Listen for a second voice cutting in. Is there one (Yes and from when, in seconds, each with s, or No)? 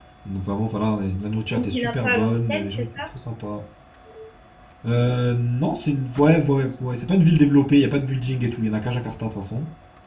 Yes, from 1.5 s